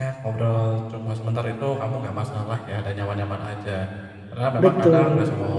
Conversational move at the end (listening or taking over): listening